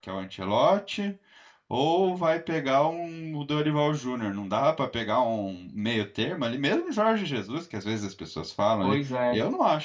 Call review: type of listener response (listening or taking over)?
listening